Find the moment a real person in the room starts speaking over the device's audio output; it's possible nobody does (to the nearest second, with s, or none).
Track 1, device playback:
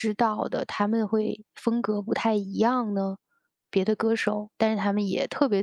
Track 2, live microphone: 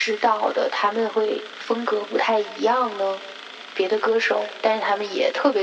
none